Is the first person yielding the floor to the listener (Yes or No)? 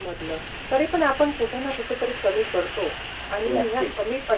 No